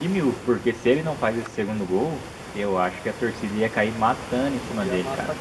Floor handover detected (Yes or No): Yes